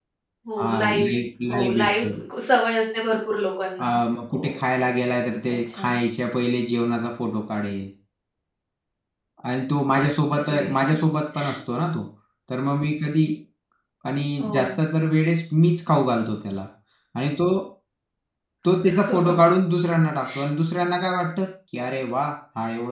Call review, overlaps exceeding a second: present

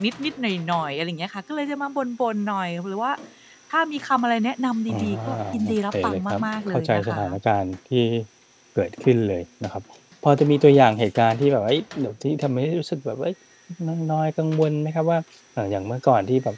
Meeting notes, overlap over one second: present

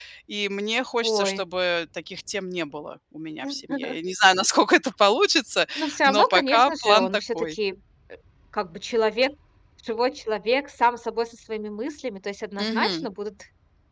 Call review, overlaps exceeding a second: present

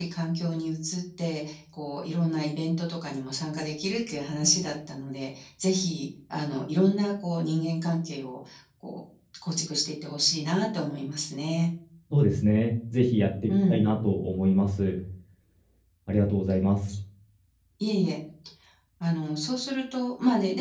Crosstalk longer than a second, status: none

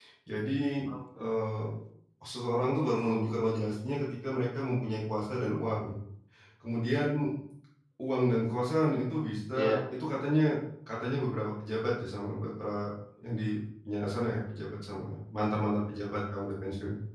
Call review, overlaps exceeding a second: none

